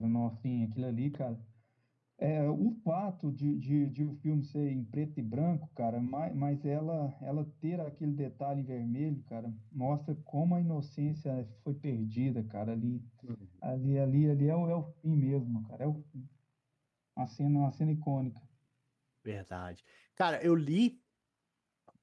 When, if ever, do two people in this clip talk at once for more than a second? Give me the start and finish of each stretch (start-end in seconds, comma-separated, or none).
none